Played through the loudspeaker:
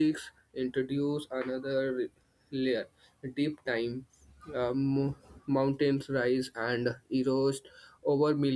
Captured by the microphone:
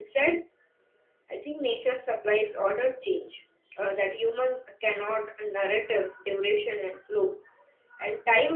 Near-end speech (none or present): present